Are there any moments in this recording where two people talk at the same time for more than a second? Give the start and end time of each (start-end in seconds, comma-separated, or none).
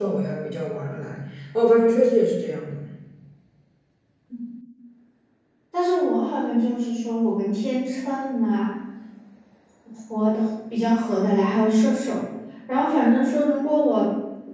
none